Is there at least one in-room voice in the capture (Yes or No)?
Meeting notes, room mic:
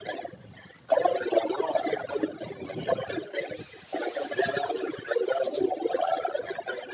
No